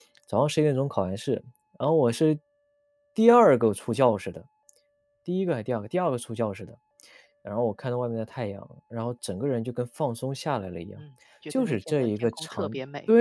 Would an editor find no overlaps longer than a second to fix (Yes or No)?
No